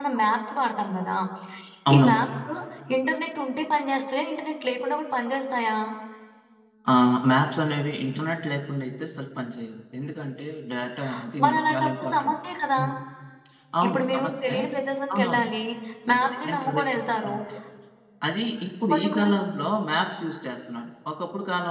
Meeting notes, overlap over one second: present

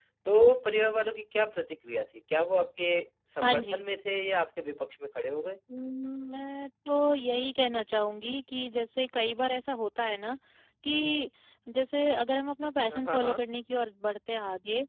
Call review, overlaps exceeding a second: none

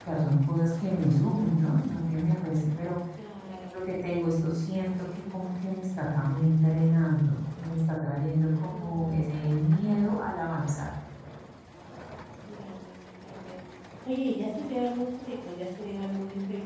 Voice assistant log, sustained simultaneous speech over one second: none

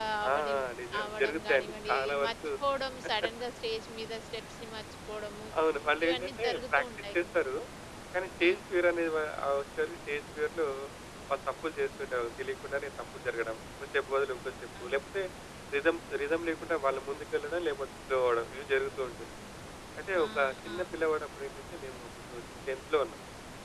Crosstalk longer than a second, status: present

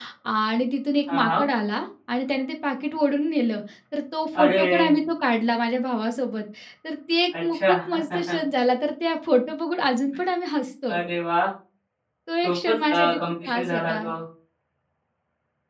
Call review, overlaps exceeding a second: present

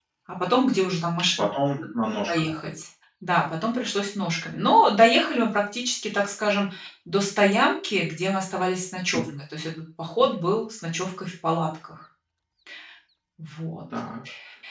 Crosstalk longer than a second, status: none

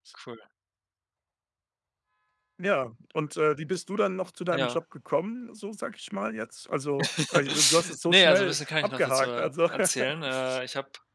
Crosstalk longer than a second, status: present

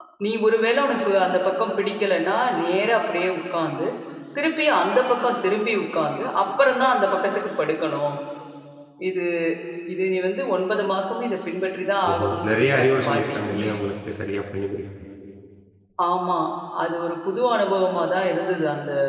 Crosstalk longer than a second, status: present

